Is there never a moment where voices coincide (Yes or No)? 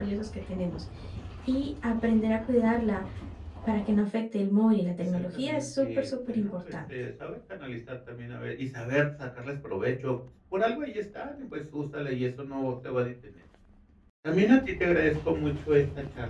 No